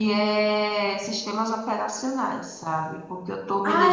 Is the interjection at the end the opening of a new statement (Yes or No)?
Yes